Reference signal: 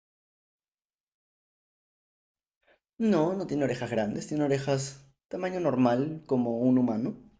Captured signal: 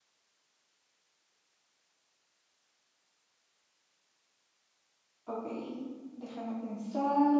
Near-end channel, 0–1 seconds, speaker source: neither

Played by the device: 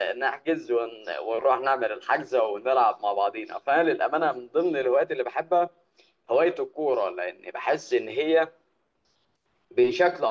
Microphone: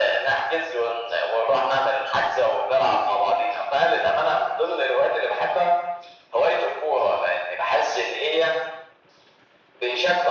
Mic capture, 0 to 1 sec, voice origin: echo only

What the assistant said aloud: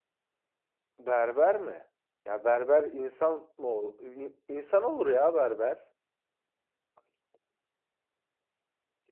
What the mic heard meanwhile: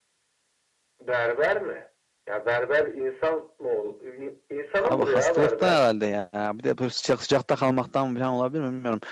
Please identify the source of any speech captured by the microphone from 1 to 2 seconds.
echo only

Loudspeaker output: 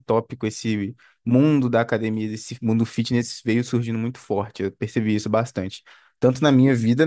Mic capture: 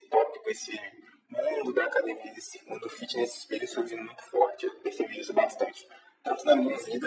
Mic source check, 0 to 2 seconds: echo only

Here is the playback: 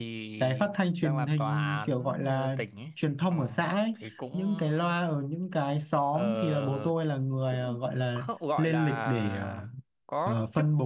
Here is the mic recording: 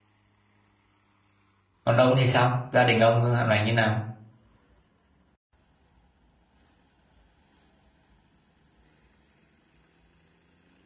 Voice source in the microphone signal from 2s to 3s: user only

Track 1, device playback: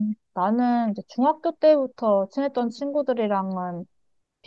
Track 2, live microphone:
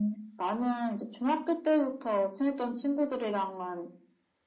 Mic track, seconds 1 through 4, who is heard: echo only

